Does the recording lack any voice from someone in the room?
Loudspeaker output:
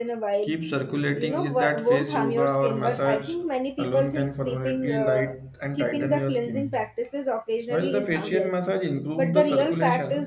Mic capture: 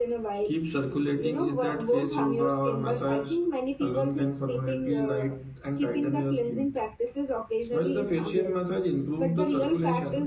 Yes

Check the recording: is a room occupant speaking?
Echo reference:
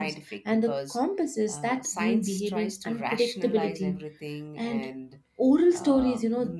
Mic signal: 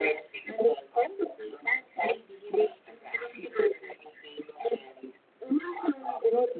No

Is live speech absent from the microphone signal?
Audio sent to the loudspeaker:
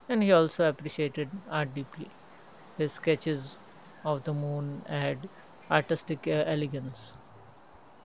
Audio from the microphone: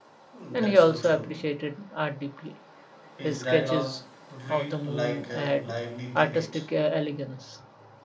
No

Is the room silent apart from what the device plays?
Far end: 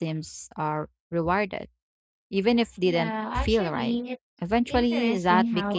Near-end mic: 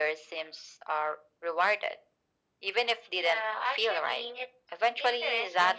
Yes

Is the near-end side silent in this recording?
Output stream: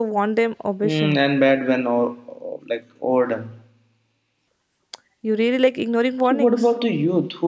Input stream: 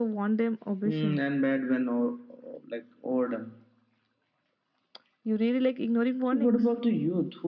Yes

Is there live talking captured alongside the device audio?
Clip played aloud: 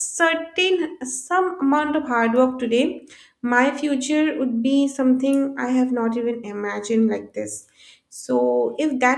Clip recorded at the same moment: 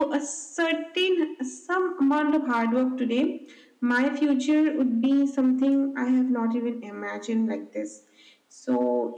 No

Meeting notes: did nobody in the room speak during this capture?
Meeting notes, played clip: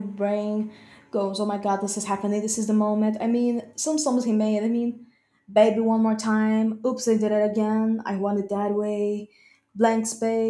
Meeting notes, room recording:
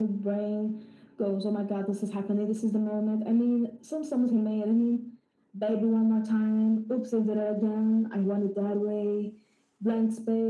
Yes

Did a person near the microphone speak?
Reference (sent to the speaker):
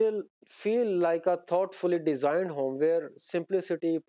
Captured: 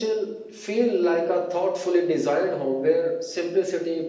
No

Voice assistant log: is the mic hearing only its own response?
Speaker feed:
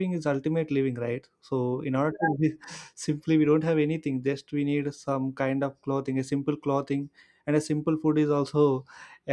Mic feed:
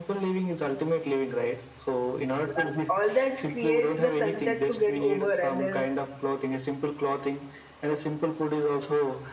No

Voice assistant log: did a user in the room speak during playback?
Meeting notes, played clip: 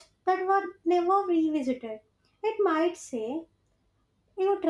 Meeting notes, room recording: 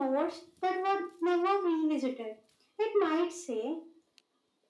No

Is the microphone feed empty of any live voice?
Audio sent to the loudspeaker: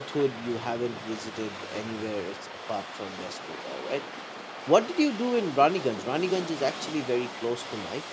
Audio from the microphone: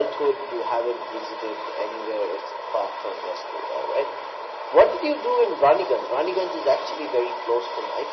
Yes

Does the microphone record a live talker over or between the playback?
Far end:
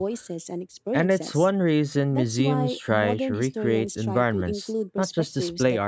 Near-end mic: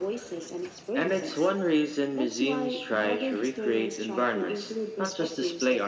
No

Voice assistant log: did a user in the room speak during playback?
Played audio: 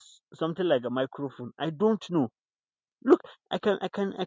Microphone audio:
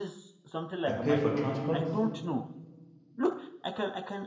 Yes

